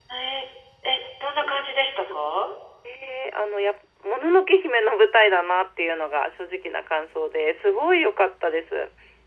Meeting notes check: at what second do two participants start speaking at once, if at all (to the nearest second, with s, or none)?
none